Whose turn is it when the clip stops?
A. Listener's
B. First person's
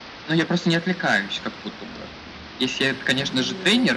B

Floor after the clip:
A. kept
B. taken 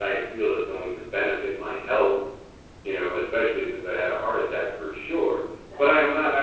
A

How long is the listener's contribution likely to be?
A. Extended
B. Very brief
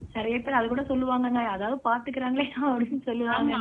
A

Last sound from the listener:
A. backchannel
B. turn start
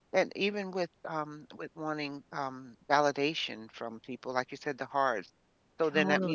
A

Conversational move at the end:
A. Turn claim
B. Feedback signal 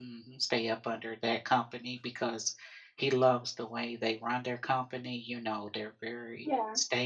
B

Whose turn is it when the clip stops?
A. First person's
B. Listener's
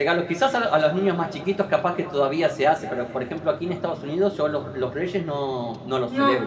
B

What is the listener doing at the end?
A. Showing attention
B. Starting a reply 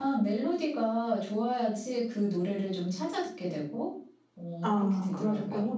B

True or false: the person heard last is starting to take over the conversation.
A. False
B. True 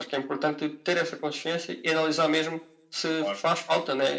A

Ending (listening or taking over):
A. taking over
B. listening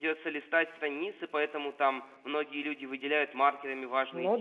B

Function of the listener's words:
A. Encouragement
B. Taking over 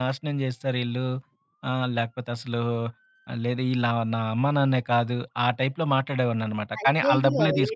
B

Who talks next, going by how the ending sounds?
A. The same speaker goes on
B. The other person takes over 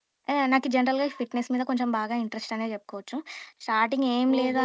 A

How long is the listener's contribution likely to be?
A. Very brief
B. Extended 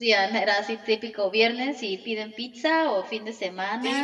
B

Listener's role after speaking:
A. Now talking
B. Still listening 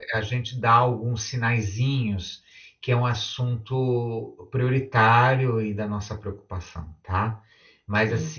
B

